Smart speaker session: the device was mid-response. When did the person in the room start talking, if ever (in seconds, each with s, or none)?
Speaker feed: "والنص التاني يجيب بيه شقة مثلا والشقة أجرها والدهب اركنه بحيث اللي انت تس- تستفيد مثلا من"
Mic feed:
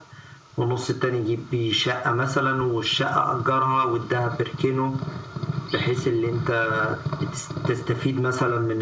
none